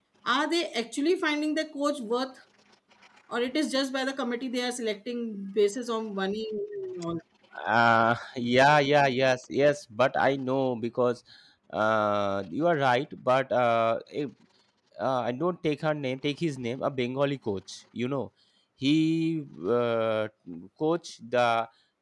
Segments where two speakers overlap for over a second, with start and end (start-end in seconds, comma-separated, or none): none